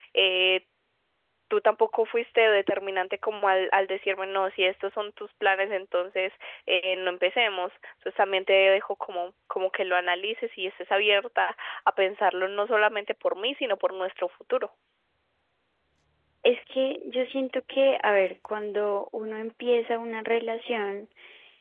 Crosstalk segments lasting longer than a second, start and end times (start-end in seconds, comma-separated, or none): none